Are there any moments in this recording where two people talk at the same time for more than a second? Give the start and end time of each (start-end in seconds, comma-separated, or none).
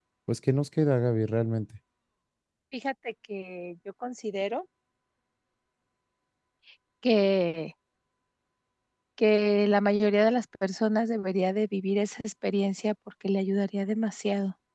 none